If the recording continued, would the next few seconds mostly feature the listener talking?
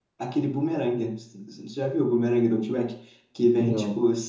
No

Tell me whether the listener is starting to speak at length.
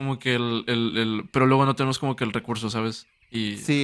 Yes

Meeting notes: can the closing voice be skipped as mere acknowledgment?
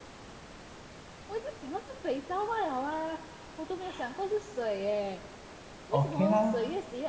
Yes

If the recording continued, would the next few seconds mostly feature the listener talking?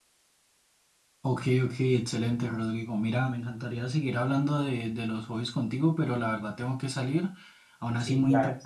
No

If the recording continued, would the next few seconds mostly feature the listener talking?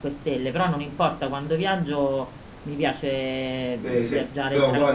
Yes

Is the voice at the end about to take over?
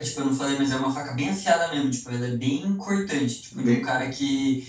No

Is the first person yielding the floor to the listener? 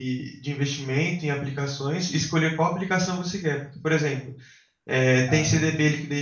No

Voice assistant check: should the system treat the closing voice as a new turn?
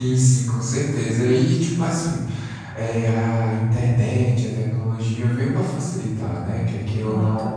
No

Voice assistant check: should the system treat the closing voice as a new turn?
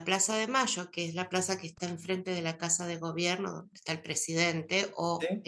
No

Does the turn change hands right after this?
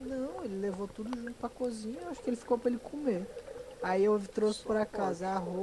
No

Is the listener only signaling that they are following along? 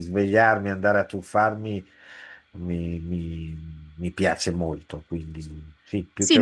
No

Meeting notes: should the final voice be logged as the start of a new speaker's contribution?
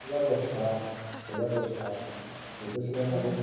No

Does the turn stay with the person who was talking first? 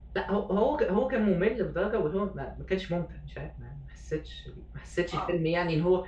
Yes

